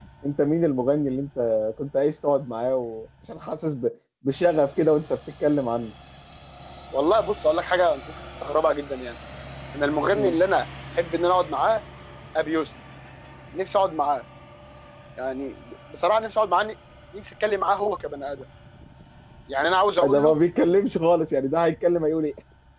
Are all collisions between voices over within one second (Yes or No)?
Yes